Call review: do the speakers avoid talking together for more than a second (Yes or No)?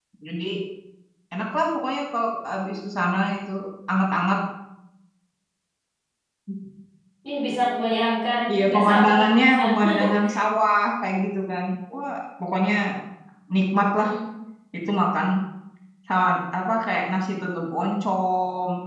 No